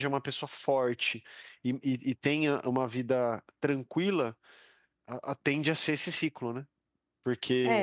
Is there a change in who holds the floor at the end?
Yes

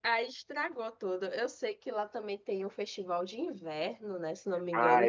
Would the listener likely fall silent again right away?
No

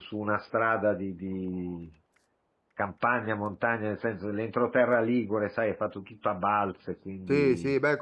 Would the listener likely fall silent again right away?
No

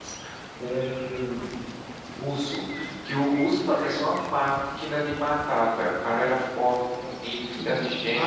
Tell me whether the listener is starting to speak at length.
Yes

